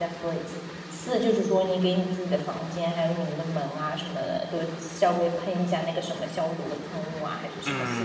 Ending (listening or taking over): taking over